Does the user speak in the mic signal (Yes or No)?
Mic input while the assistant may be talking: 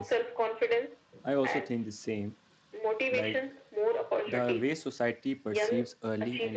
Yes